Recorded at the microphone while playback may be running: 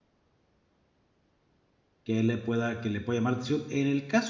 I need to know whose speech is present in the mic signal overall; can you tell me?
user only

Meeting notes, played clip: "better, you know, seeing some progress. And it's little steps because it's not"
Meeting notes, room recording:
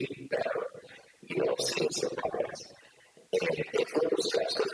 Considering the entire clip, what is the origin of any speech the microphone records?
echo only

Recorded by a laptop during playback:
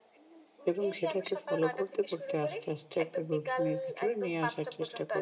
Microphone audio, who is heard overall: both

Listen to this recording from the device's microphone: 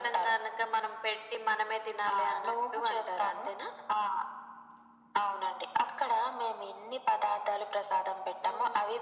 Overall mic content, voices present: echo only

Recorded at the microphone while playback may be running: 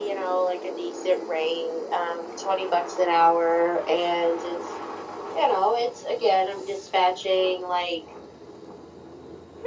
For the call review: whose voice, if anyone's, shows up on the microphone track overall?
echo only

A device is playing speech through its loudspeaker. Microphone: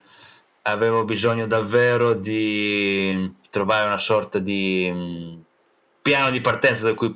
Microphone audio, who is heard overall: echo only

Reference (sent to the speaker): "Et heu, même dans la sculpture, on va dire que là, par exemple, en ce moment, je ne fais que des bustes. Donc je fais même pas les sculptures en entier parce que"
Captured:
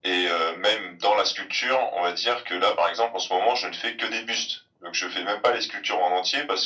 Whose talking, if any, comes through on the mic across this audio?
echo only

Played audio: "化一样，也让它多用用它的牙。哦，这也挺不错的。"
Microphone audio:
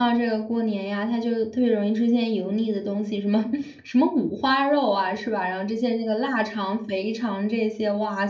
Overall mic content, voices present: user only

